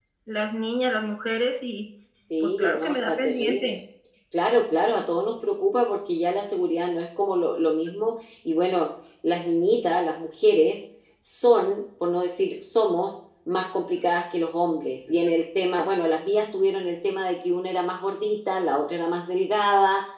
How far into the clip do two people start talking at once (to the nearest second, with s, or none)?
2 s